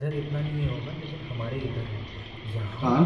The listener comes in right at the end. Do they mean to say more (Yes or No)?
No